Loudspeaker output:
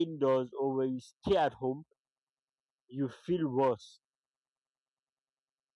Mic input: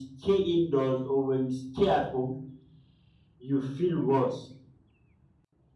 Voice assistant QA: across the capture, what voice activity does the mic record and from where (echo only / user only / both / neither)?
echo only